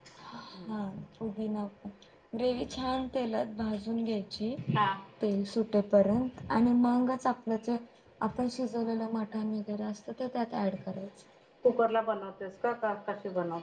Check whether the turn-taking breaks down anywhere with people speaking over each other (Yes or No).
No